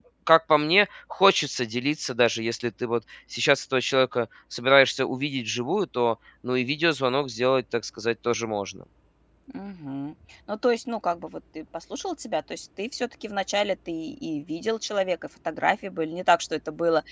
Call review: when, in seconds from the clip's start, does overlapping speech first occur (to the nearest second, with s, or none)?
none